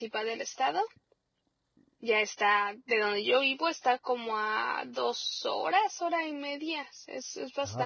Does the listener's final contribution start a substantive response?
Yes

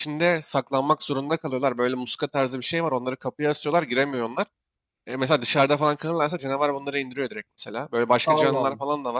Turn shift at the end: No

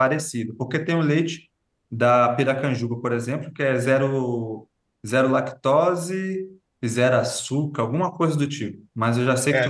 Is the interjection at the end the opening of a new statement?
Yes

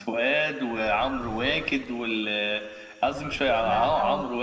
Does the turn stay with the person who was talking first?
Yes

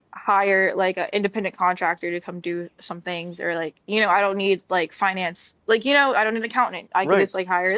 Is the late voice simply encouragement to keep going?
No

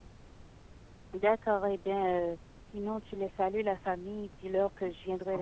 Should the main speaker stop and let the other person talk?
Yes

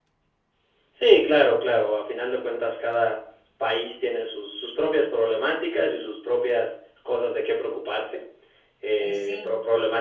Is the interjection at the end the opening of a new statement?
No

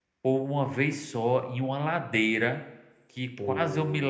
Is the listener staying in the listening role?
Yes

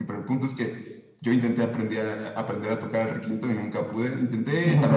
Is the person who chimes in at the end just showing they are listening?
Yes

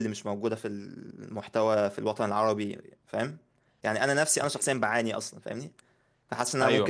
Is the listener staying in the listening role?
Yes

